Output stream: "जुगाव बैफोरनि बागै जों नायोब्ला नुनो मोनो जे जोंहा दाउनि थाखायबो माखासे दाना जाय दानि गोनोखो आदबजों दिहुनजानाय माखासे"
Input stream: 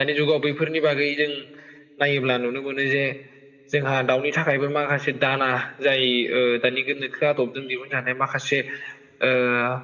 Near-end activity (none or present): none